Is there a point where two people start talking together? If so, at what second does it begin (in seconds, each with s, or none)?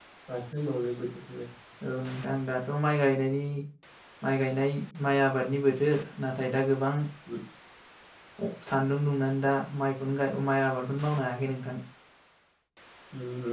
none